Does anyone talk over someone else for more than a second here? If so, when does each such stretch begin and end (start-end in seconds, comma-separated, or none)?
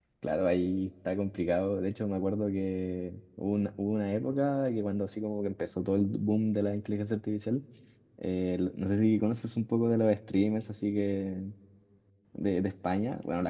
none